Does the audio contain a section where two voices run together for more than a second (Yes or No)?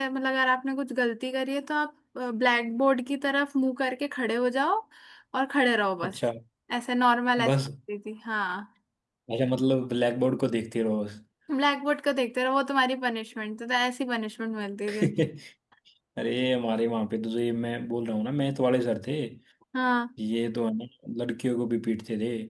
No